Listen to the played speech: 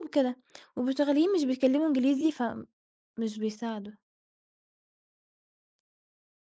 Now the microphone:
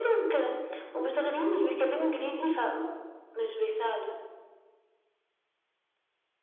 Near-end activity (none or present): none